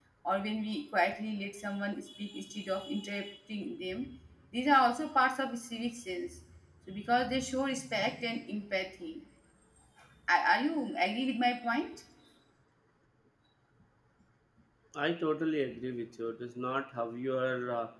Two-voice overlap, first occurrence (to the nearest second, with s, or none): none